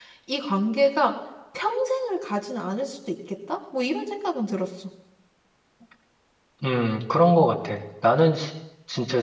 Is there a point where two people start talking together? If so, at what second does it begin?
none

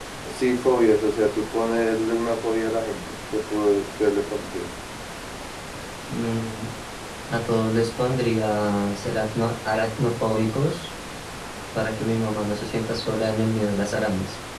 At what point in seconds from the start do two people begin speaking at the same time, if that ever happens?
none

